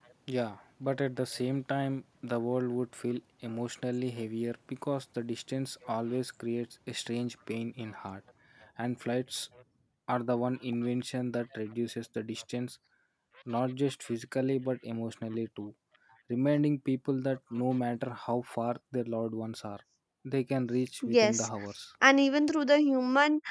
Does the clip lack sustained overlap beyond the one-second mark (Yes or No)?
Yes